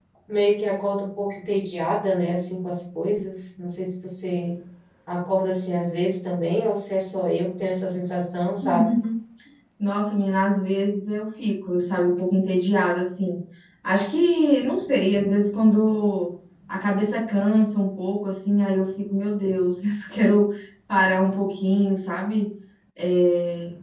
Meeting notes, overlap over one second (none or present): none